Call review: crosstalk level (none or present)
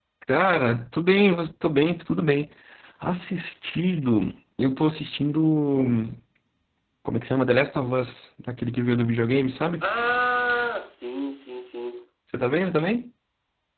none